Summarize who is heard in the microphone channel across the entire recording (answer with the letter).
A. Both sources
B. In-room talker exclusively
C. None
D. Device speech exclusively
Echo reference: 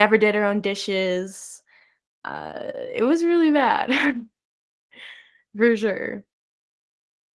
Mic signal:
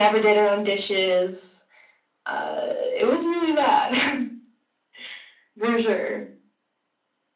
D